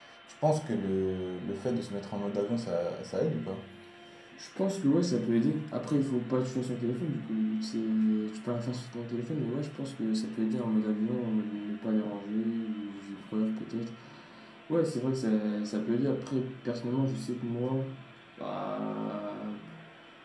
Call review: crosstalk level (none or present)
none